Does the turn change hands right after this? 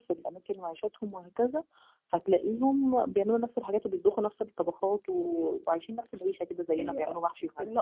Yes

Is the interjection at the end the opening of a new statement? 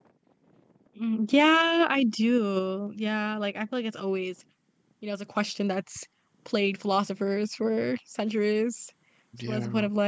No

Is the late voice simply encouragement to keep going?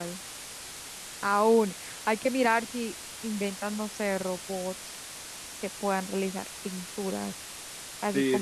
No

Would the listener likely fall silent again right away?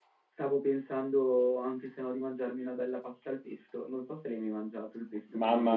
No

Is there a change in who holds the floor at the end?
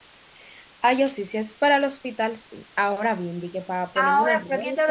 Yes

